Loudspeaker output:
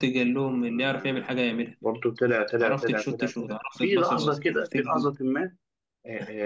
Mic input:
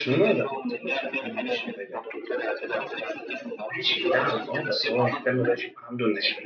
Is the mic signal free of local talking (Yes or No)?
No